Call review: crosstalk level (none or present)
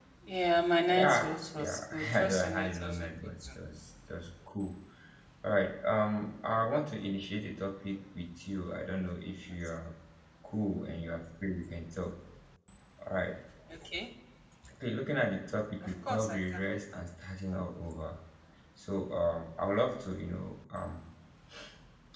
present